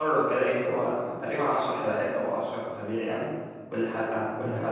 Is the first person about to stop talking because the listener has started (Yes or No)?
No